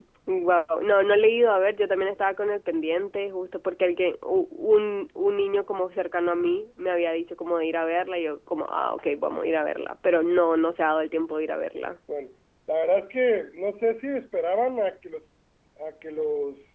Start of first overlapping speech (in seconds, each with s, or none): none